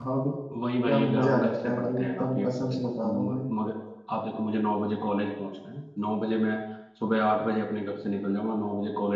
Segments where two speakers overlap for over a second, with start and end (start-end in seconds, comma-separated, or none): 0.9-3.4